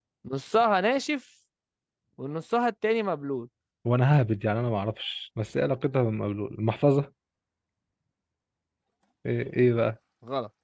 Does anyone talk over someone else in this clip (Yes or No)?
No